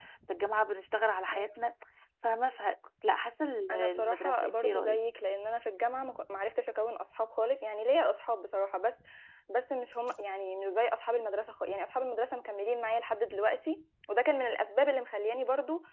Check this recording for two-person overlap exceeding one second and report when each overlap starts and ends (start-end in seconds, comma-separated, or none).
3.7-5.0